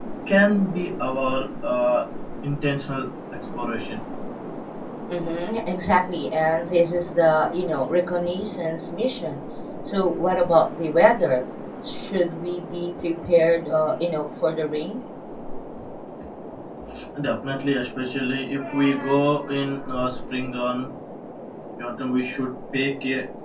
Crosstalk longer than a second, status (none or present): none